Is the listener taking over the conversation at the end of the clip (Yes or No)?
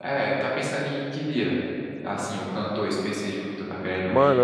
Yes